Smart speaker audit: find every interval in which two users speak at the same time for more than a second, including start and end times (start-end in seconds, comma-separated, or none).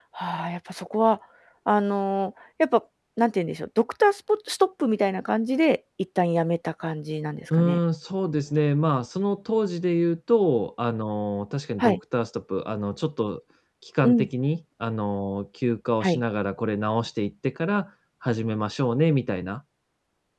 none